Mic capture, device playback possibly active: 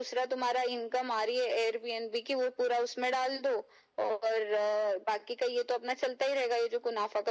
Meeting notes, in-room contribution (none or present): none